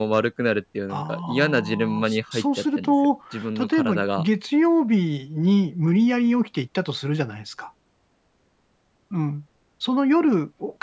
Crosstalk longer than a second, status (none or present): present